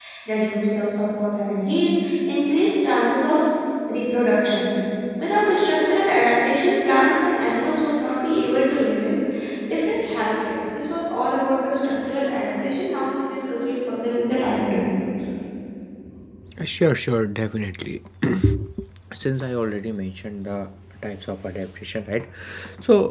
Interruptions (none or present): none